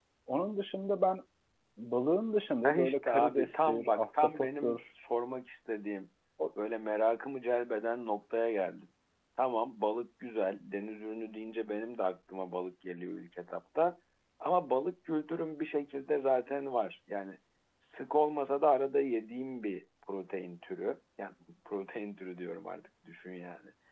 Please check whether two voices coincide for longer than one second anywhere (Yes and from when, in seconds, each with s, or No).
Yes, from 2.6 s